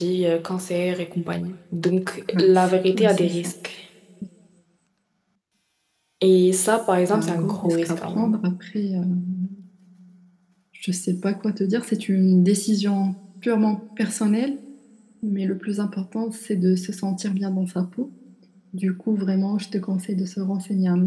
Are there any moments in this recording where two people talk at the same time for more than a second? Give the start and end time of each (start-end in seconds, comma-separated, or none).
2.3-3.5, 7.1-8.4